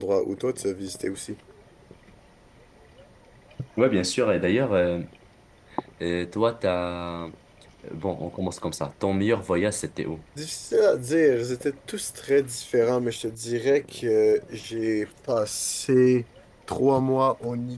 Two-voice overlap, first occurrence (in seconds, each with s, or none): none